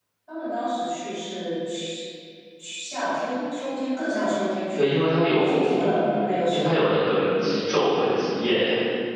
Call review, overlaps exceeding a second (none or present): none